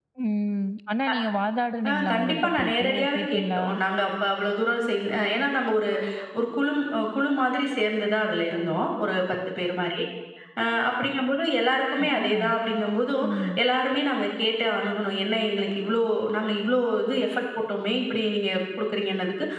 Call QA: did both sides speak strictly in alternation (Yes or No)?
No